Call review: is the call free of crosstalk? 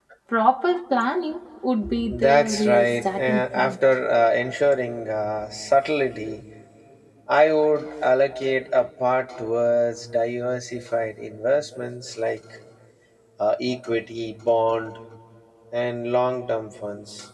No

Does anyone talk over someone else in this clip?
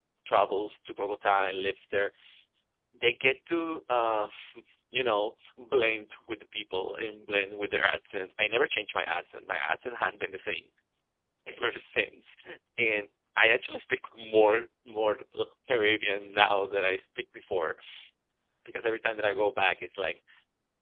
No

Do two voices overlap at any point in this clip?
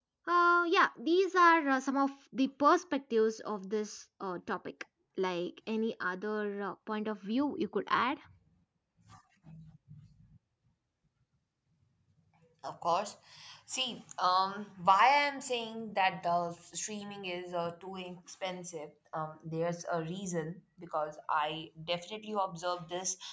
No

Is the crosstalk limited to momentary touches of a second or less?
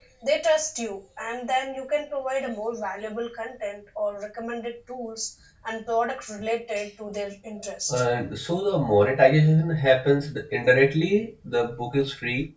Yes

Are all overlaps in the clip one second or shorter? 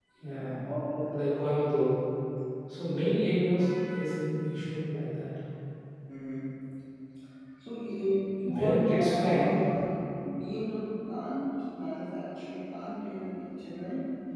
No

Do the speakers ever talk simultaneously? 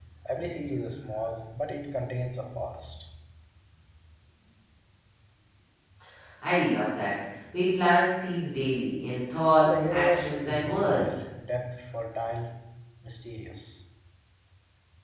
Yes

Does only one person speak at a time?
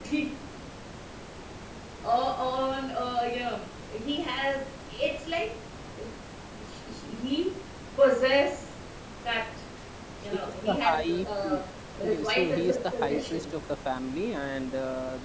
No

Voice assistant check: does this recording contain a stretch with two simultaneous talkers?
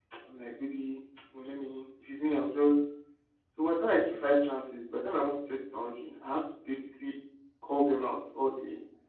No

